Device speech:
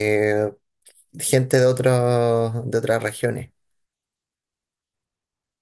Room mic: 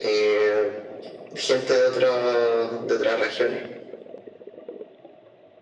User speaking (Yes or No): No